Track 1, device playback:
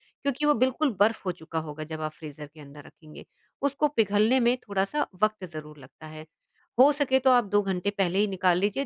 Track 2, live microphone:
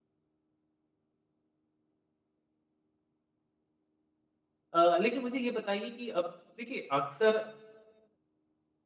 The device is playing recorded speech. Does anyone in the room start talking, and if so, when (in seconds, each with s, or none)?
4.7 s